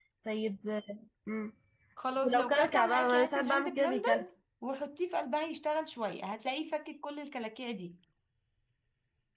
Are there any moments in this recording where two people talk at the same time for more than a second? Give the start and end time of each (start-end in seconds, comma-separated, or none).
2.1-4.2